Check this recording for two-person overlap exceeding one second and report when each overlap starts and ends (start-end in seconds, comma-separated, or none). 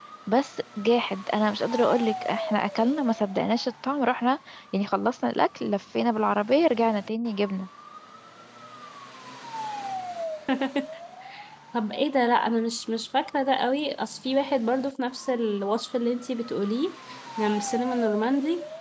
none